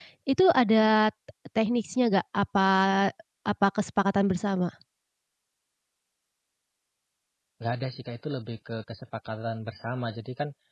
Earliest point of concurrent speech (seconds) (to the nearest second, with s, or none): none